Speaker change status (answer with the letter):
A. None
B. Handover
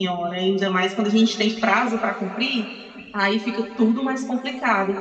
A